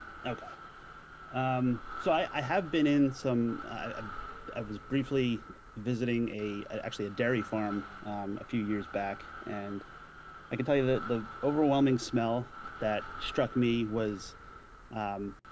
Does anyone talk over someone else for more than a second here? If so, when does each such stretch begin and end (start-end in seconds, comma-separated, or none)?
none